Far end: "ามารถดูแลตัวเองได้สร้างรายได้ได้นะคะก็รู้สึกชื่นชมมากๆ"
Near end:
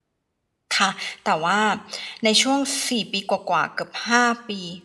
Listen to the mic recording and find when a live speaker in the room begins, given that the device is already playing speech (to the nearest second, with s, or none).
1 s